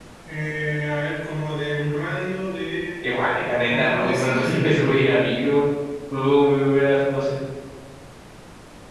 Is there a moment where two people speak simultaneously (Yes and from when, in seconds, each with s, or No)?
Yes, from 3.7 s